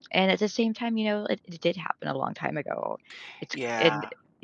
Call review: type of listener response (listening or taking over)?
listening